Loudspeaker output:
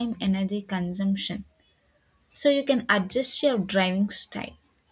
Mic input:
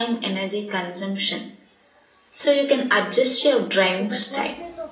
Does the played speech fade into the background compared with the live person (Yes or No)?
No